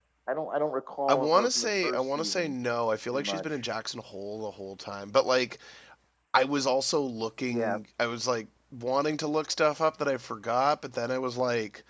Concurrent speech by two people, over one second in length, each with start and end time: 1.1-2.5

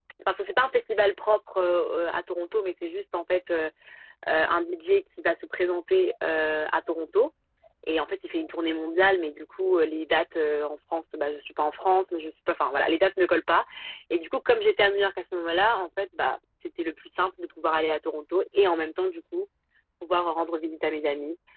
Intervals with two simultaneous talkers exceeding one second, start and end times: none

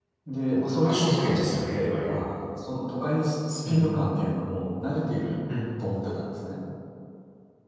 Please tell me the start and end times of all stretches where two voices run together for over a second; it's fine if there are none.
0.8-2.3

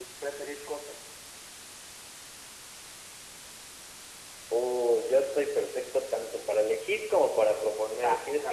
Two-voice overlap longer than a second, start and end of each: none

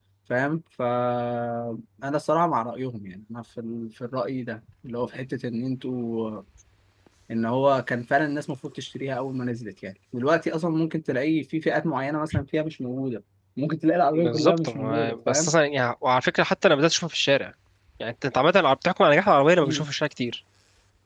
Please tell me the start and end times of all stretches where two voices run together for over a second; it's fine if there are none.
14.1-15.5

